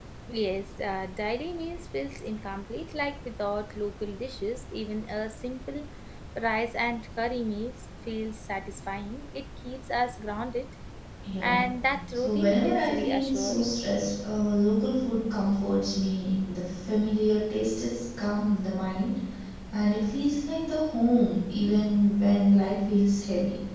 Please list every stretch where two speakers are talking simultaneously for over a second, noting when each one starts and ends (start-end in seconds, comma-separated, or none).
12.1-13.7